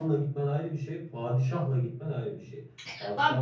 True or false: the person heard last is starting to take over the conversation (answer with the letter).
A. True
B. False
A